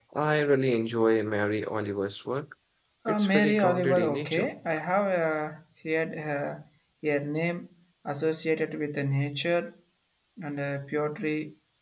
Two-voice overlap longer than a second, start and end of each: 3.1-4.5

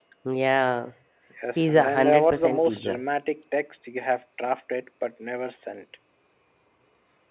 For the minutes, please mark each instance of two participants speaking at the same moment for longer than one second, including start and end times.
1.6-3.0

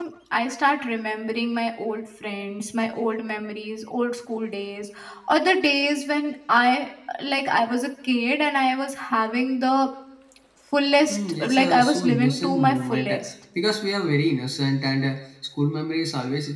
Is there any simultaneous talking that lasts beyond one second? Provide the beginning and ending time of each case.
11.1-13.2

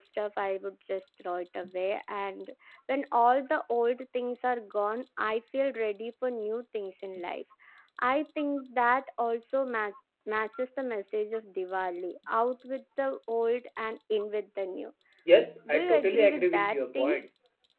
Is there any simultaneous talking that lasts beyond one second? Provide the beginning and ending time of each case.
15.7-17.2

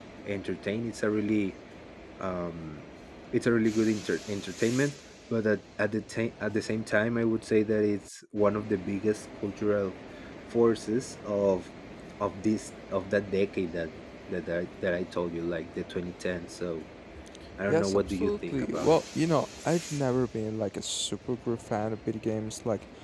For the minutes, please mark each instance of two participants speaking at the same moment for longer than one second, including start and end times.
17.7-19.0

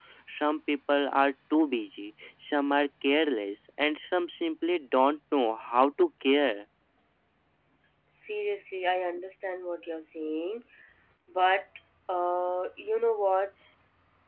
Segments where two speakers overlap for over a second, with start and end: none

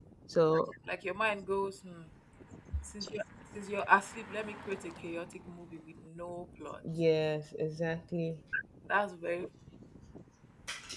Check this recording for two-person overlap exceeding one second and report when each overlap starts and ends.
none

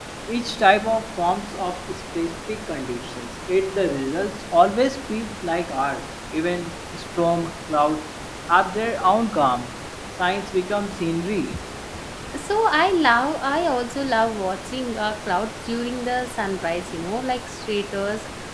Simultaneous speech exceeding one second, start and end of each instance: none

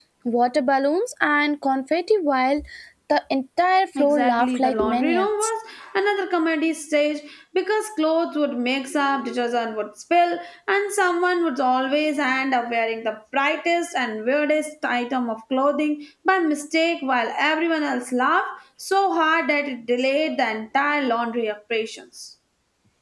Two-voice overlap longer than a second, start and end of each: 4.0-5.5

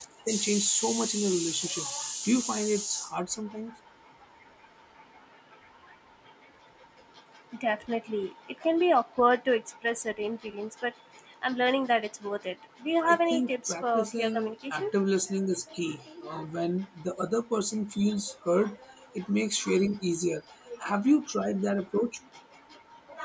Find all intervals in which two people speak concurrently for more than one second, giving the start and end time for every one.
13.0-14.8

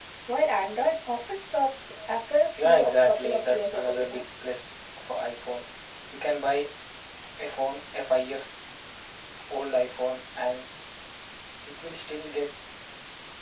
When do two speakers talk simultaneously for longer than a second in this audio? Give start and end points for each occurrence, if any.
2.6-4.2

